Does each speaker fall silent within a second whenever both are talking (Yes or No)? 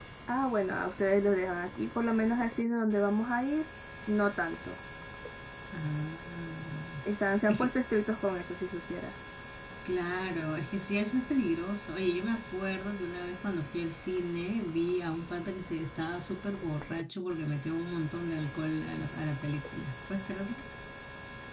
Yes